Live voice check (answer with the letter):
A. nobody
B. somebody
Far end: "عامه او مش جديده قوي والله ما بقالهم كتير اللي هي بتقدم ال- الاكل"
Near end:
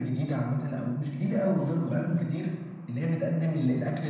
A